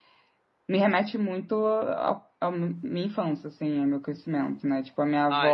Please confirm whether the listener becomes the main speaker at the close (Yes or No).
No